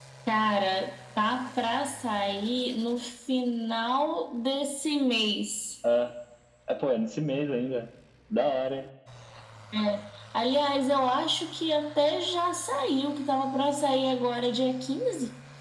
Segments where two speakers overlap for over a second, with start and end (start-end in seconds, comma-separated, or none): none